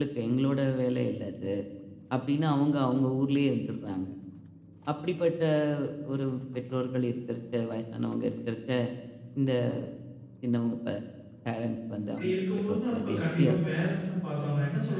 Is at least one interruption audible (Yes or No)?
Yes